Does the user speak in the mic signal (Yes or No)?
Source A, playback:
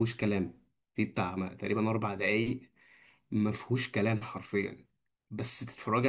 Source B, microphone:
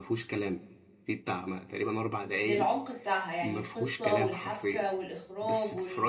Yes